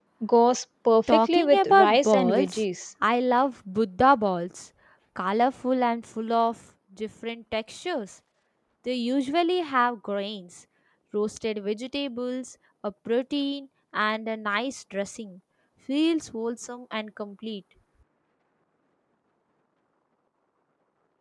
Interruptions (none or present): present